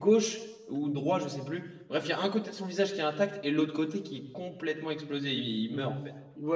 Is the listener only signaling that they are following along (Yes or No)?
No